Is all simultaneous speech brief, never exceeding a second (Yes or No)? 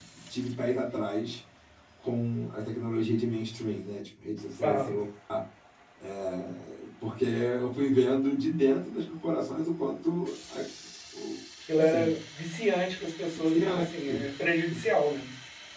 Yes